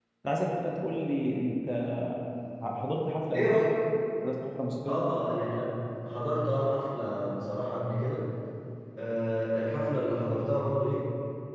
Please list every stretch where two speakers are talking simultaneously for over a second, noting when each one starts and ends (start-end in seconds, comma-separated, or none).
none